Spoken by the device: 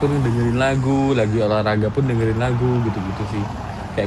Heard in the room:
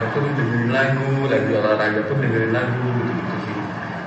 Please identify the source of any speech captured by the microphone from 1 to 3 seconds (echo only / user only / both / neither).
echo only